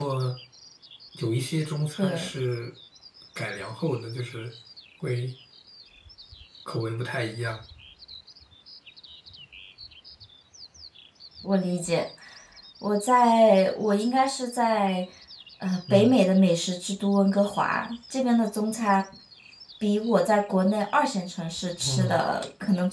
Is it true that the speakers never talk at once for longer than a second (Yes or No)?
Yes